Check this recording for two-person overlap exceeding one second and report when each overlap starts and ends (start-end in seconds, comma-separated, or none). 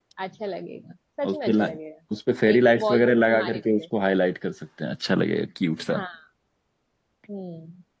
2.5-3.9